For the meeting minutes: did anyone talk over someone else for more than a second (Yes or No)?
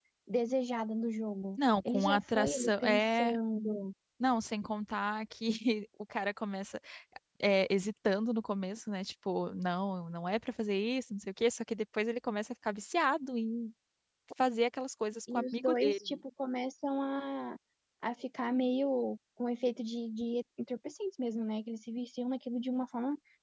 Yes